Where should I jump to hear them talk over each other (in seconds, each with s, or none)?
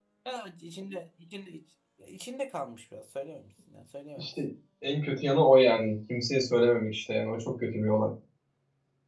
none